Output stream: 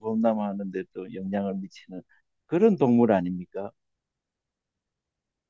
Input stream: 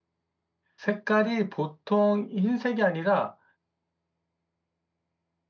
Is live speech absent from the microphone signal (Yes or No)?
No